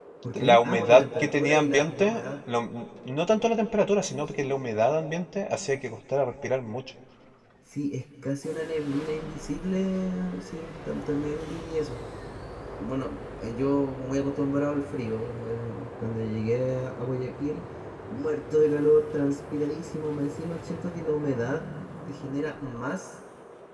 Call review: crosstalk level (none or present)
present